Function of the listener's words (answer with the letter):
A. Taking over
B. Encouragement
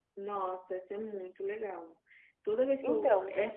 B